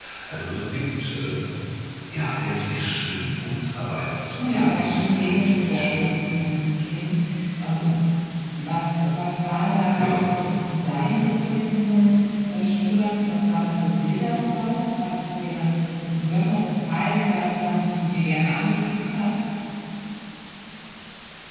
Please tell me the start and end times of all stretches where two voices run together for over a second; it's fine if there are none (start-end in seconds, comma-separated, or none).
4.5-6.1